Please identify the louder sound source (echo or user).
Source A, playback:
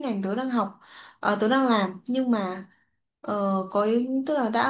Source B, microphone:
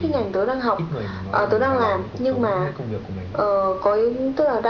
echo